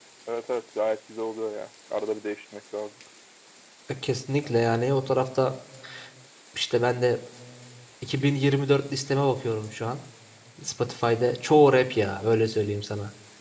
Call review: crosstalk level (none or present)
none